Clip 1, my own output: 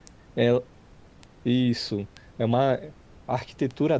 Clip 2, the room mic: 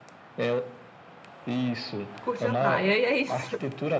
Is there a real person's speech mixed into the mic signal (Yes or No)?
Yes